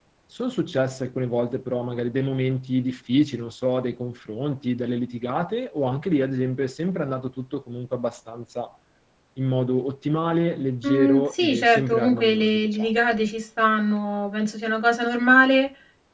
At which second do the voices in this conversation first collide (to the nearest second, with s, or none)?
11 s